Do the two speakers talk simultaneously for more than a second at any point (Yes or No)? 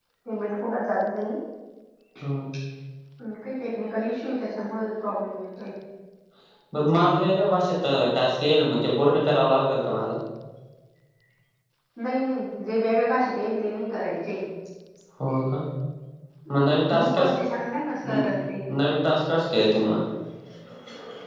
No